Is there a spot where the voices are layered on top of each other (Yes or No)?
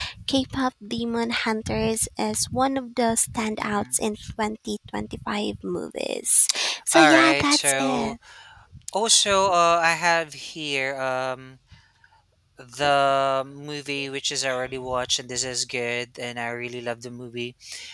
Yes